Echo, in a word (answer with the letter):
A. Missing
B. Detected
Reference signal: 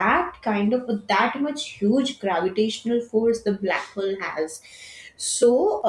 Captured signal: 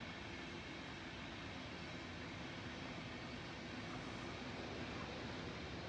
A